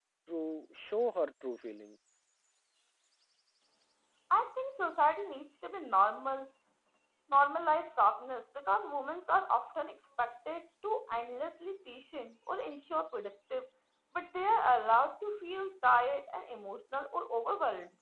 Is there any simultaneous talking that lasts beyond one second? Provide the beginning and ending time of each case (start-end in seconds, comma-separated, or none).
none